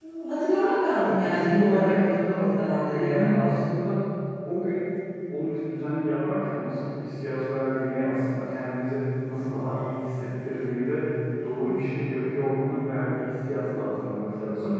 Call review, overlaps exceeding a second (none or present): present